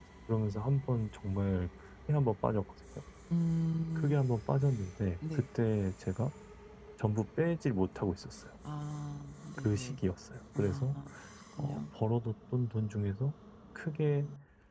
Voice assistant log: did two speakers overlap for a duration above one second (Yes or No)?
No